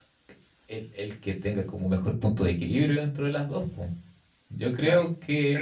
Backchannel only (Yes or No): No